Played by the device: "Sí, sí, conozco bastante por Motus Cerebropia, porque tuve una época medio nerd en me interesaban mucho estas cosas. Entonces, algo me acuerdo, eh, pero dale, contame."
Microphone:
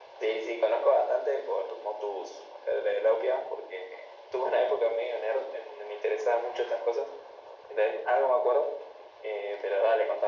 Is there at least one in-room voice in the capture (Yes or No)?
No